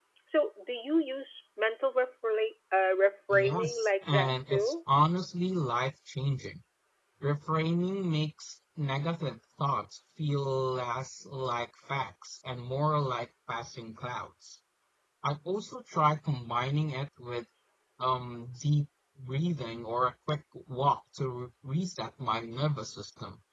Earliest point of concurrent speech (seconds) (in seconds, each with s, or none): 3.3 s